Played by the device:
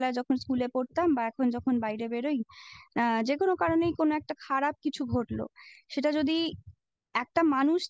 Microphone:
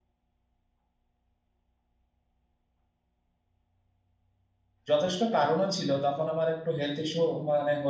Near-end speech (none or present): present